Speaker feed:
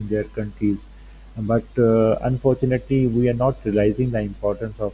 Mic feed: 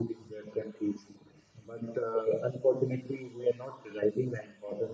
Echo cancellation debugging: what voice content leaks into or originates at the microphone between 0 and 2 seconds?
echo only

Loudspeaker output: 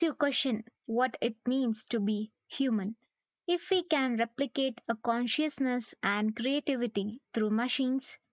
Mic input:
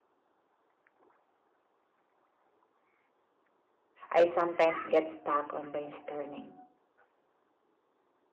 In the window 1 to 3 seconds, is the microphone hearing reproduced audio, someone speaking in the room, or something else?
neither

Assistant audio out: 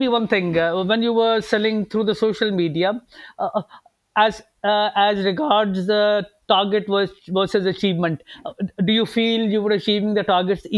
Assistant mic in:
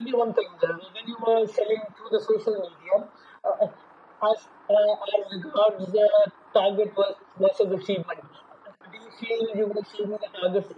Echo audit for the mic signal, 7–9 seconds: echo only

